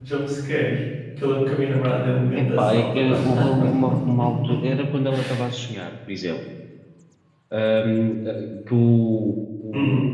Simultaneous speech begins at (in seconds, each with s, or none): 2.4 s